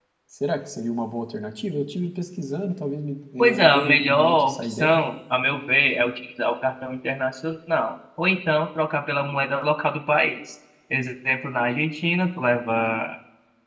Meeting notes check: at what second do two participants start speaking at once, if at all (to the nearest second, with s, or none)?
3 s